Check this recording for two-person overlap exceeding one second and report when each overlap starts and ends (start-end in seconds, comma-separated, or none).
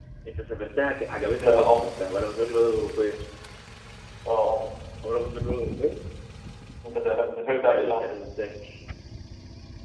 none